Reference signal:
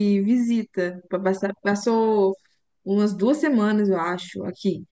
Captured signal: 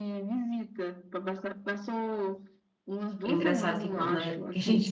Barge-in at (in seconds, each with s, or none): 3.2 s